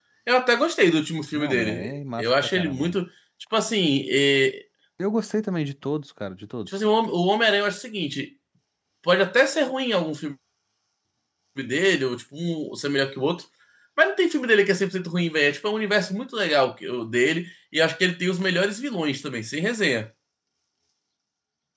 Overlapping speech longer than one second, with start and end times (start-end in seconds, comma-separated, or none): 1.3-3.0